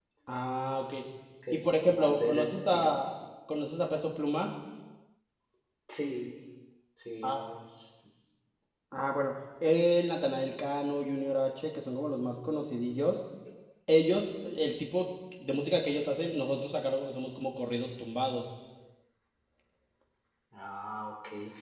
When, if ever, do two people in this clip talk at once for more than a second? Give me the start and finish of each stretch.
1.5-2.9

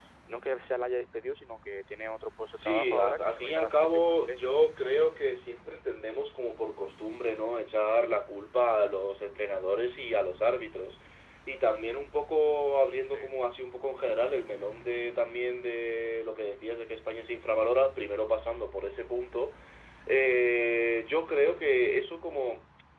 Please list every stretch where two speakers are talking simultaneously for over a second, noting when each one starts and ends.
2.6-4.5

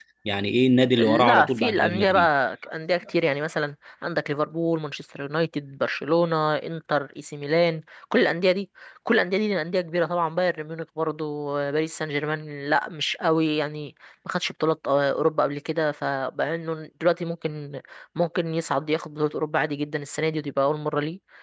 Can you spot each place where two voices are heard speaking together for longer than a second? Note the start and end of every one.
1.0-2.3

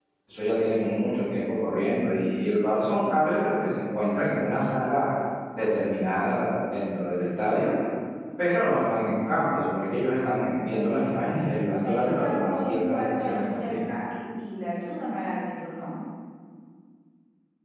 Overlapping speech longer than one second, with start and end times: 11.7-13.7

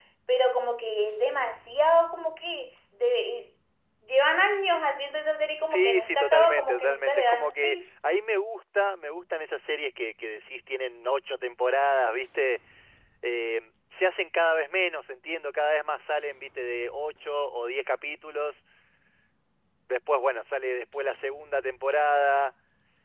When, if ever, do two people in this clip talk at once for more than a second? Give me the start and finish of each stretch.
5.7-7.8

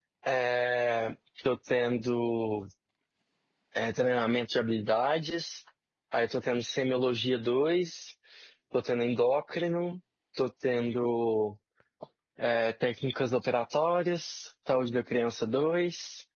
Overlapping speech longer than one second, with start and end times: none

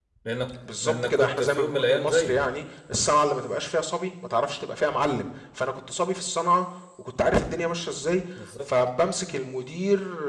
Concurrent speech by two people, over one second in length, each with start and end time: 0.8-2.4

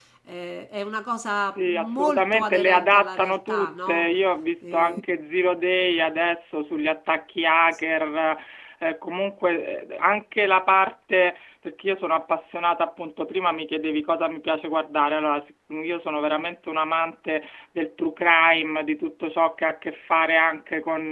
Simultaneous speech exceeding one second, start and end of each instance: 1.6-4.1

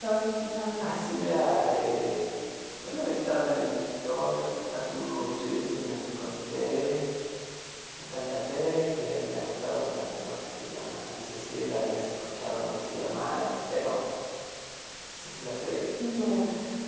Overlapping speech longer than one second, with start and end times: none

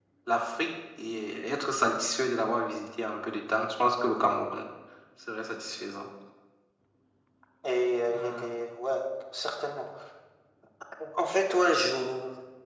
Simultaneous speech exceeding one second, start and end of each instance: none

